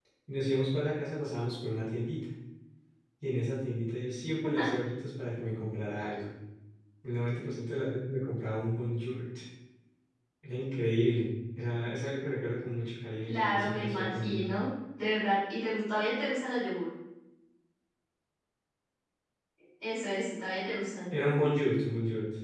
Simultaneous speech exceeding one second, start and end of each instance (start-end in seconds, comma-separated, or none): 13.2-14.4